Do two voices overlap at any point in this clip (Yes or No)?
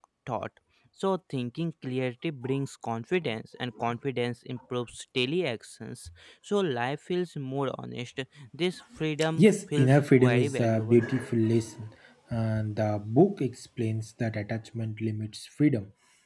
Yes